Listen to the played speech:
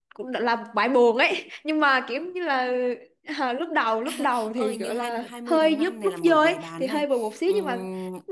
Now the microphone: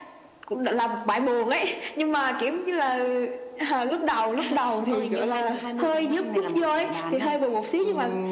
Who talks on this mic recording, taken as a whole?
echo only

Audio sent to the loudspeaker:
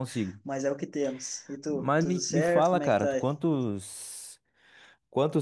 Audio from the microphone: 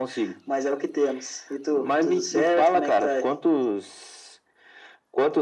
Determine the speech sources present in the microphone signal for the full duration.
echo only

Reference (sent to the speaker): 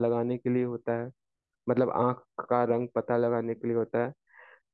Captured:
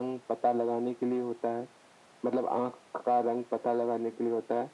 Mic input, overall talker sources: echo only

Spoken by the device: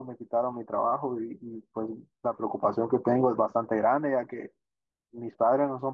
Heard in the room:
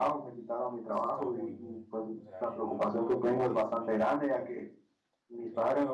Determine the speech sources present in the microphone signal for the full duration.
both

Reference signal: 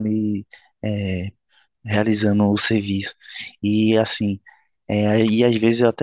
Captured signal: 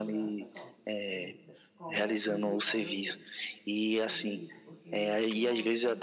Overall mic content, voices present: both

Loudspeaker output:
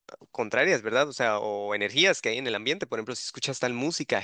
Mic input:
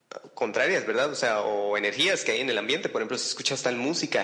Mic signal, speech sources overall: echo only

